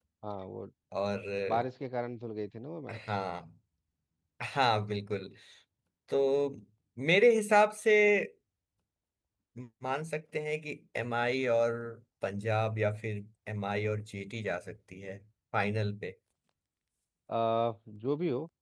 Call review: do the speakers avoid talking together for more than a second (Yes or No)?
Yes